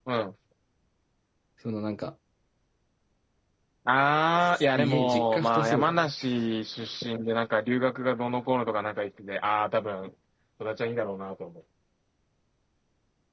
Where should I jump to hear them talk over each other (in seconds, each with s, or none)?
4.4 s